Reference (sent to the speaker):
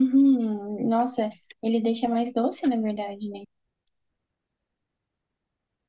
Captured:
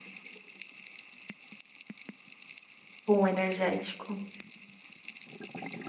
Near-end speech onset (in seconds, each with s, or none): 3.1 s